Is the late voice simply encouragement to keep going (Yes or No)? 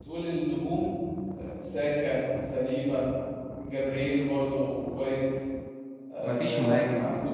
Yes